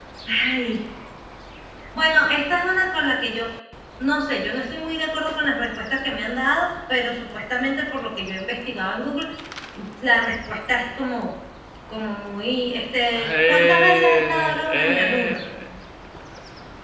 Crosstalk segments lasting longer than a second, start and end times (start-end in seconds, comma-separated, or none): 13.1-15.4